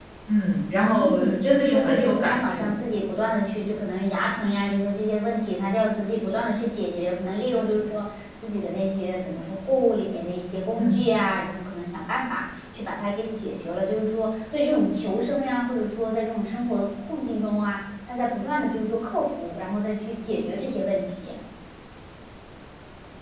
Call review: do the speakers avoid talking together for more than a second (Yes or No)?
No